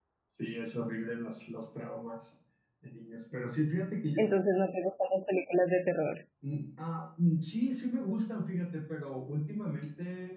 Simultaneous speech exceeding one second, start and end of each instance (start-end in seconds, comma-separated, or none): none